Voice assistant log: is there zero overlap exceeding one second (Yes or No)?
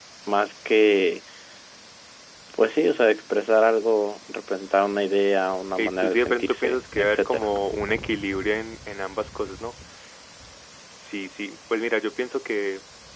No